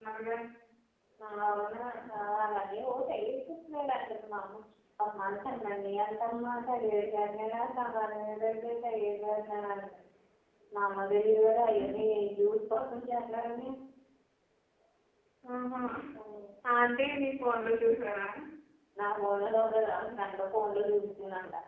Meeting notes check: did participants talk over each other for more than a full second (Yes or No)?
No